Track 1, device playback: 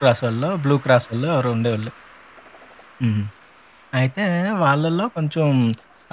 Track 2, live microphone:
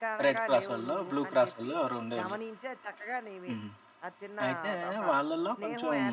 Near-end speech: present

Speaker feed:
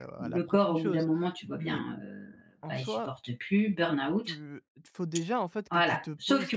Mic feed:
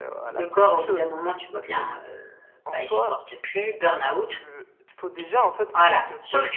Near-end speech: none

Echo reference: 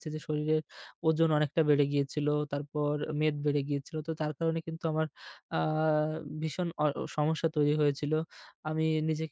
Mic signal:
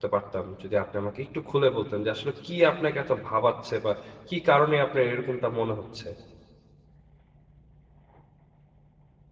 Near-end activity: present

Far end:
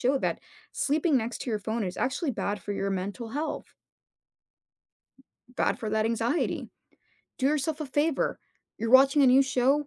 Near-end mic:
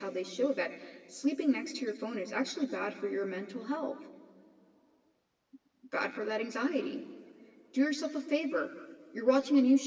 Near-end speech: none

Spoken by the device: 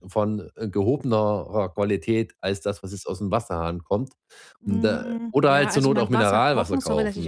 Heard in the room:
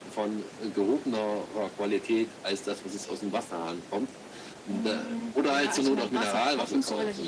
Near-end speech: none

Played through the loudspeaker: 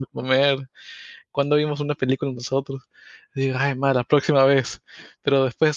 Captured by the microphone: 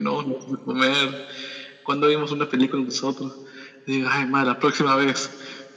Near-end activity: none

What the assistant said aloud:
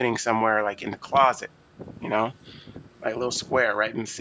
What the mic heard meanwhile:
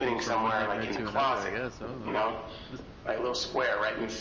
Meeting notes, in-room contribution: present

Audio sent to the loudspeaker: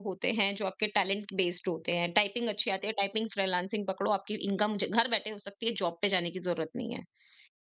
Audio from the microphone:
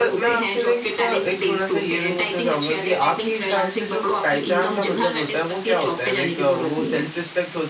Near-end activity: present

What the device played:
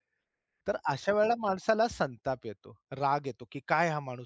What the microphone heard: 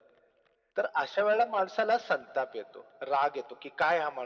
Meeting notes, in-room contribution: none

